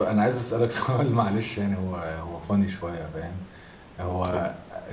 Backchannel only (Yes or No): Yes